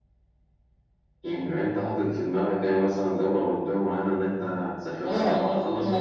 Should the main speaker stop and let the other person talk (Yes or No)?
Yes